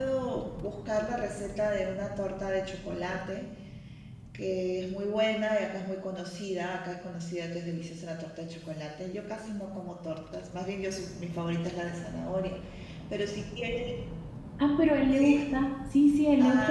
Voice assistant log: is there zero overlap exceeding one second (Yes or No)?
Yes